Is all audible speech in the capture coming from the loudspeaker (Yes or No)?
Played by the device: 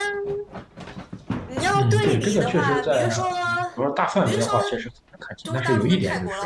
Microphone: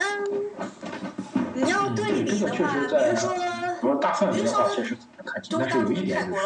Yes